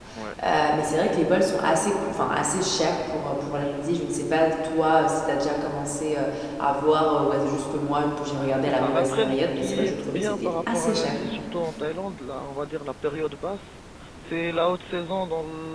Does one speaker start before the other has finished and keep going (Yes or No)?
Yes